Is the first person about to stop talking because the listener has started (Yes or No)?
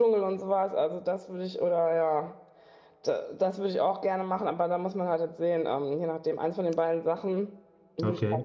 Yes